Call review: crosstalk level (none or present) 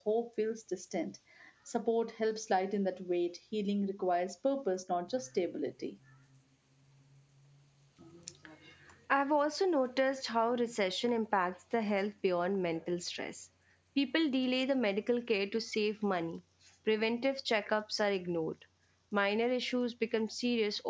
none